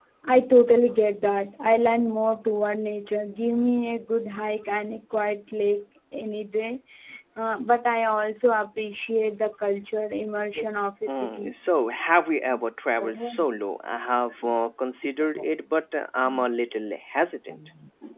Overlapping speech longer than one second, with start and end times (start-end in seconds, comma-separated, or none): none